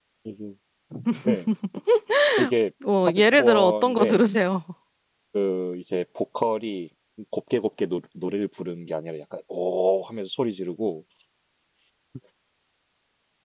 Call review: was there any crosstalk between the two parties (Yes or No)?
Yes